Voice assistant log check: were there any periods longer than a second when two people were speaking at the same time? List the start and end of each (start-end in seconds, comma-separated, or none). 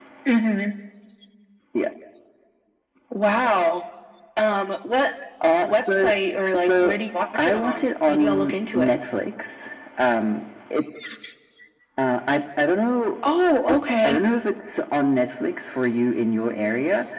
7.3-8.9